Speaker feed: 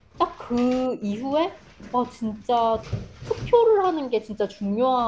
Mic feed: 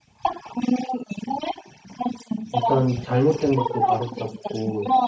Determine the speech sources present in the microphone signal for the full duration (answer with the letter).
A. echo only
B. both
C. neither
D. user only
B